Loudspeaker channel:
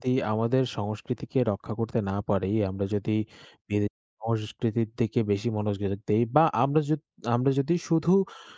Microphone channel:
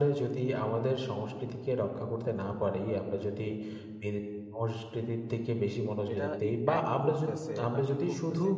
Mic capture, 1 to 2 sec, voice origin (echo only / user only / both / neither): echo only